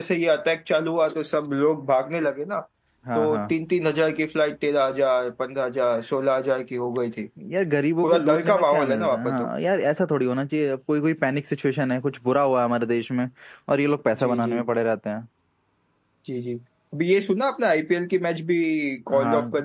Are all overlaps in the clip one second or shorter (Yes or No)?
No